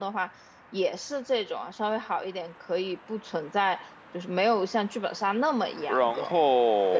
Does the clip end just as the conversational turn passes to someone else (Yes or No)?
Yes